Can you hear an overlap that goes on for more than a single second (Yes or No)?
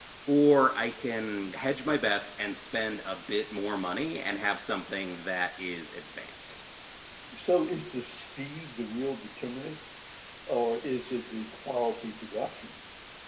No